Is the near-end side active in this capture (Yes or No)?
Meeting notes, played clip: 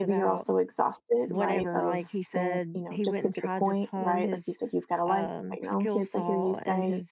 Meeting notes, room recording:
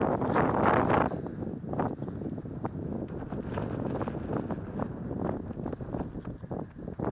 No